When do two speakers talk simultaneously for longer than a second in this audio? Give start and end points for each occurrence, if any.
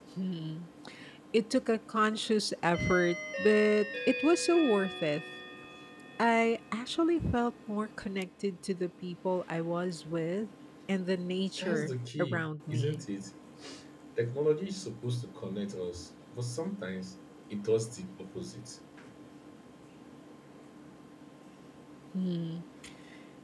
11.6-13.0

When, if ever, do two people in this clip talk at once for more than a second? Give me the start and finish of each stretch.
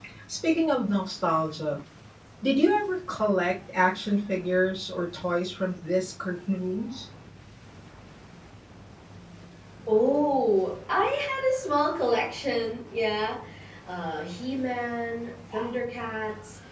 none

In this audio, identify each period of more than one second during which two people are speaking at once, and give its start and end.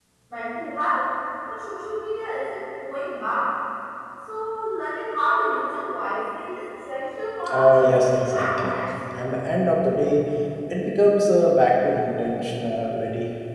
7.5-8.8

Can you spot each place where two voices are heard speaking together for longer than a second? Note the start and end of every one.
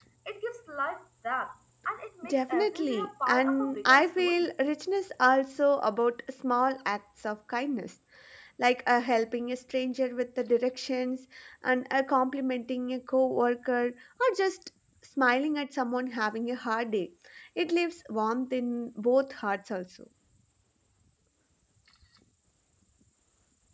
2.2-4.5

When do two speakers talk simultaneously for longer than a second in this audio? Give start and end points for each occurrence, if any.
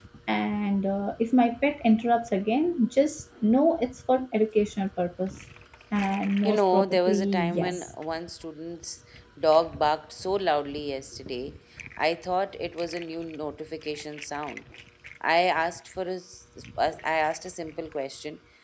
6.4-7.9

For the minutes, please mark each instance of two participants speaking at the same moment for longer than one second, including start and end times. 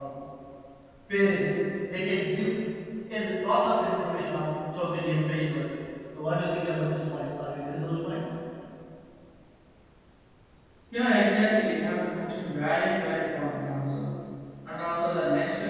none

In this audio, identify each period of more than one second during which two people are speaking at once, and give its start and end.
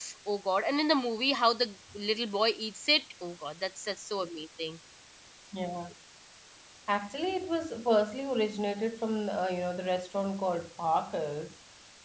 none

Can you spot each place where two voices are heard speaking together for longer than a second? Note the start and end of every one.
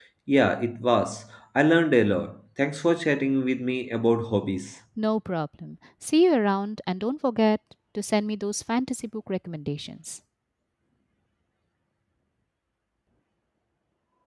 none

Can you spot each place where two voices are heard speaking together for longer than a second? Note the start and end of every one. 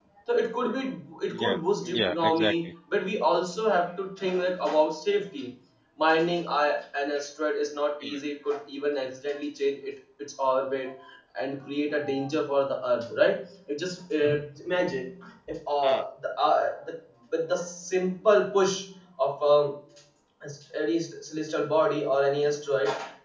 1.3-2.5

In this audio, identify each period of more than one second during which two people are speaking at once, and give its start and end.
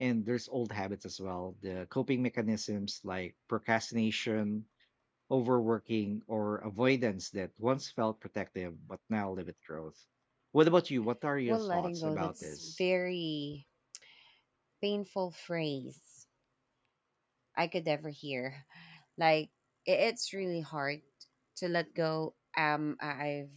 11.5-12.8

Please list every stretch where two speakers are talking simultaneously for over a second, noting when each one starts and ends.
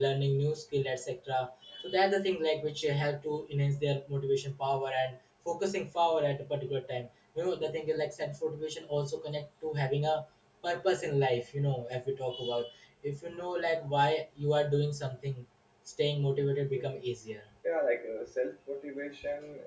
none

